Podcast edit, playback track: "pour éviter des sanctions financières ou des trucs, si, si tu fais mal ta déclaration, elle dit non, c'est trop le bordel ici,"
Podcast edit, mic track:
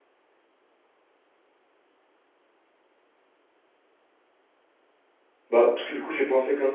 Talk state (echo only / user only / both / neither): user only